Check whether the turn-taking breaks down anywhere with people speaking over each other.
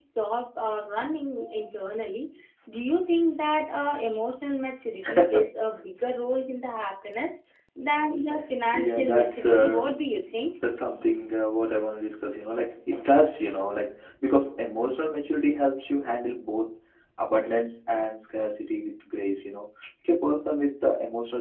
Yes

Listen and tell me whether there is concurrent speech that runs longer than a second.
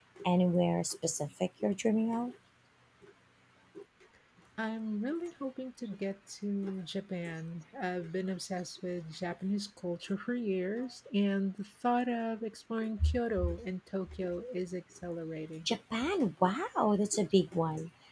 No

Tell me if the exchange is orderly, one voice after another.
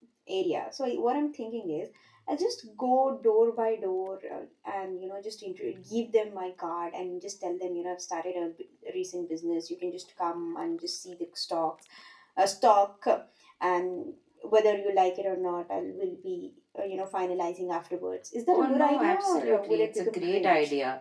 No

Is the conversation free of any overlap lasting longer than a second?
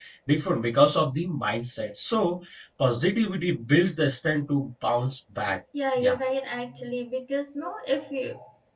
Yes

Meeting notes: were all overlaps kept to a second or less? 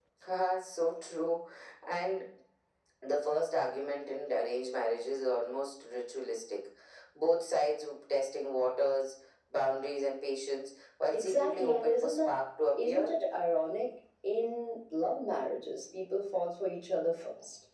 No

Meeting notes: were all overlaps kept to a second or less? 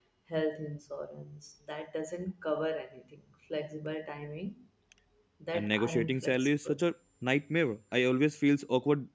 No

